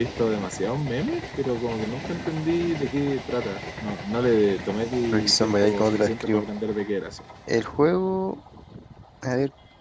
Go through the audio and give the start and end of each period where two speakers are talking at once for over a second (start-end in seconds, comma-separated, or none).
5.1-6.4